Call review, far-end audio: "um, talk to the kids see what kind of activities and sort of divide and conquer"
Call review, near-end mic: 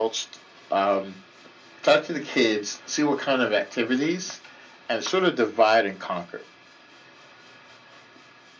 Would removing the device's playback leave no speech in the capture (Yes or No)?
Yes